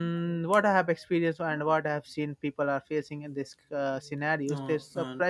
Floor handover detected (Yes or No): No